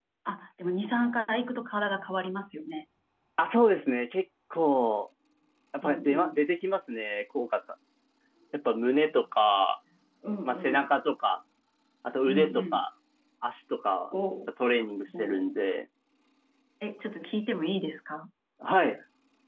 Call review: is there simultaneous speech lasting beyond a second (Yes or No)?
No